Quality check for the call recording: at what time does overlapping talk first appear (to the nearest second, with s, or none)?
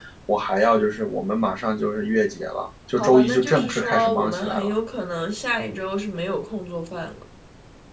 3 s